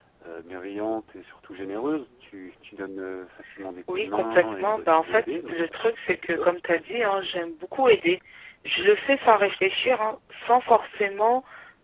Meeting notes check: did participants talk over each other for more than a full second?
Yes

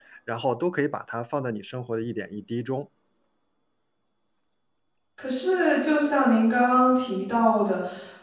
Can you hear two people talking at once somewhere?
No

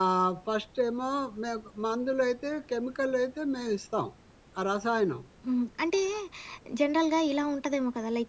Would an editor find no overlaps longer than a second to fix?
Yes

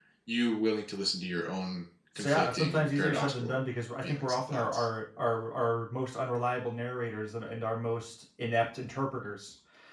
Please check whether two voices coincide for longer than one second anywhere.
Yes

